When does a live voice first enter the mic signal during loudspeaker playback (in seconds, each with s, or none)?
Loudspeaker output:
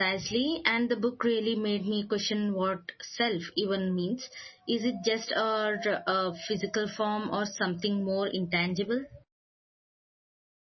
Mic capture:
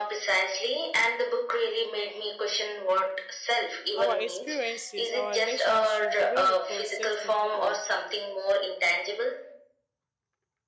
4.0 s